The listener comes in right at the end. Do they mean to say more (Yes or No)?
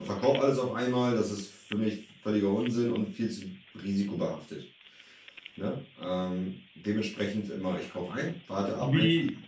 Yes